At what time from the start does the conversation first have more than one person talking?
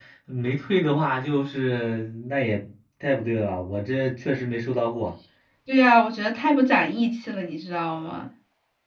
none

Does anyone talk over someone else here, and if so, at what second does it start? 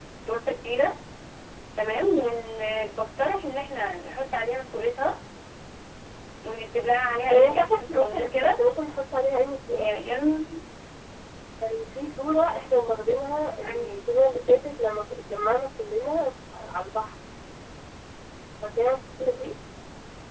7.3 s

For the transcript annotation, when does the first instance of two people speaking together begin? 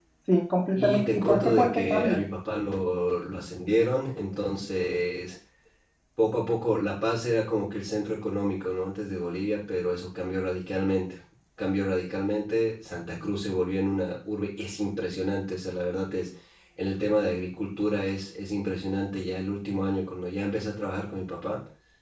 0.8 s

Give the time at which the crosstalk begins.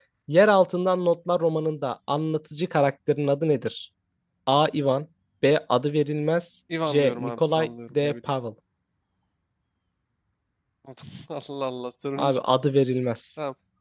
6.7 s

